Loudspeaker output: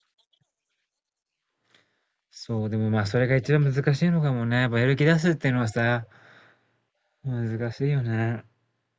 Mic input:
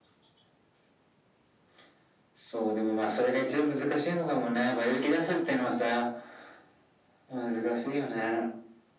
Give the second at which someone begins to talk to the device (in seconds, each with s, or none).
none